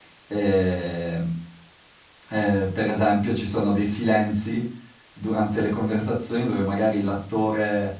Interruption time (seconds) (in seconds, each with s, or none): none